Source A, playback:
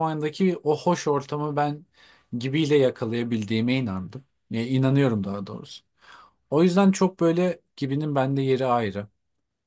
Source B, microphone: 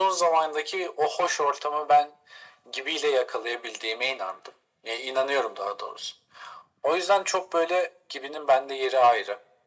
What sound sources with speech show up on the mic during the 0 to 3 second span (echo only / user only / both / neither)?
echo only